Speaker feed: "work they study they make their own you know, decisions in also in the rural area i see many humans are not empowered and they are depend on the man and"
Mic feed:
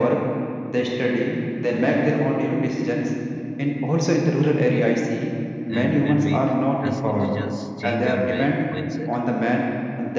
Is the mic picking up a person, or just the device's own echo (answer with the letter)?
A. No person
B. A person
B